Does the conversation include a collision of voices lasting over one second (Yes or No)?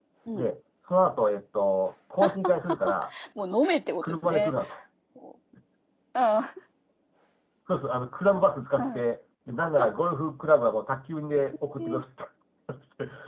No